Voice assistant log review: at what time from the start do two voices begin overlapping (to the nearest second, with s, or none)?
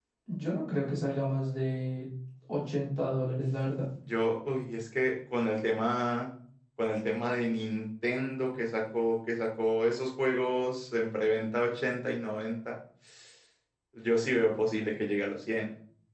none